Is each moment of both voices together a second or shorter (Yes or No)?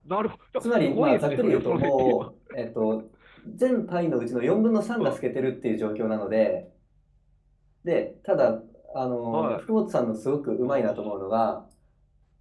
No